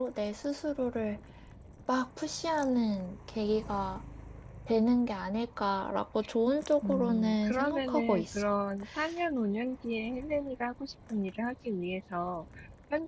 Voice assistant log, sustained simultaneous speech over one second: present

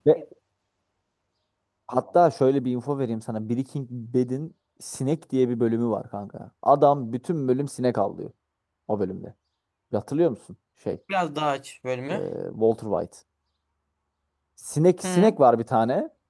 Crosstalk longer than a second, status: none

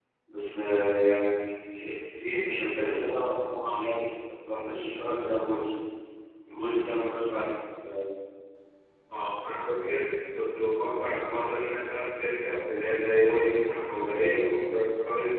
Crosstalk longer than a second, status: none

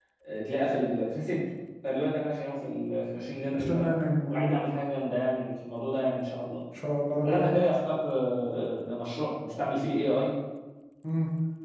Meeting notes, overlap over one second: none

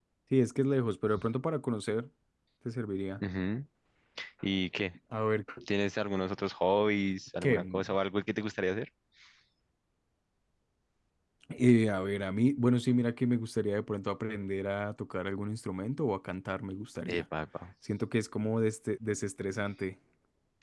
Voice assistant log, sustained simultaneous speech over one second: none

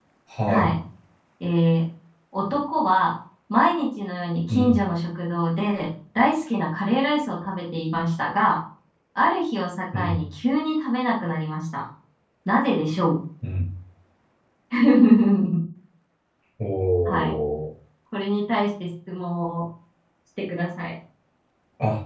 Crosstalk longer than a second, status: none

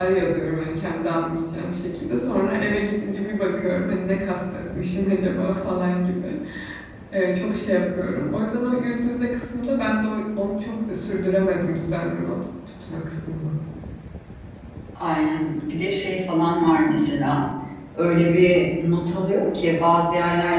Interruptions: none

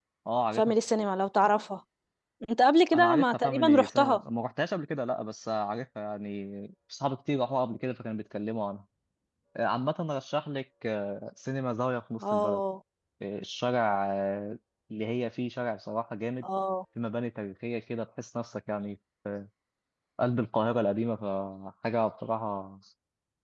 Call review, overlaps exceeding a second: present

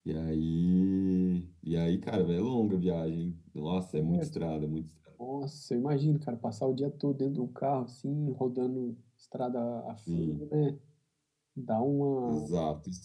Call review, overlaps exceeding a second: none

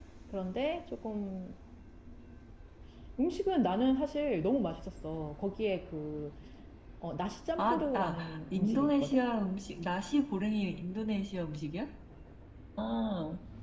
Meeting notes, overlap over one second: present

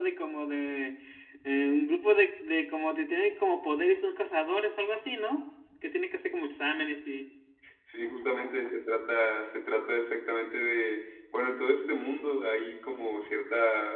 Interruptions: none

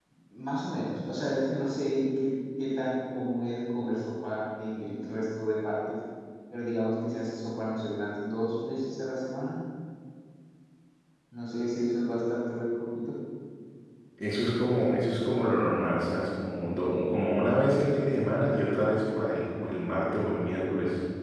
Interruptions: none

